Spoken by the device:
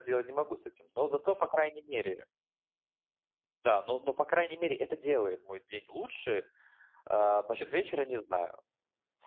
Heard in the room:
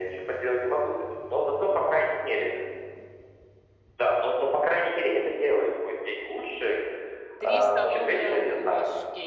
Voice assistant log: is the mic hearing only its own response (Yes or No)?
No